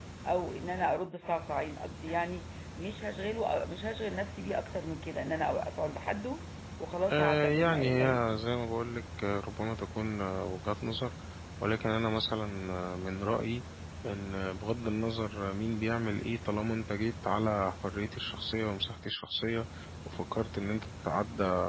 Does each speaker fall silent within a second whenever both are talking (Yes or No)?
No